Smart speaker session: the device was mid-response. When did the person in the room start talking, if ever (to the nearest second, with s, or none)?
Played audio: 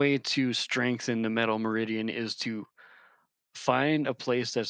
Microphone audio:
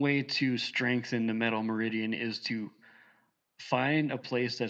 none